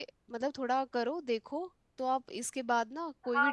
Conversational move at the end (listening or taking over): taking over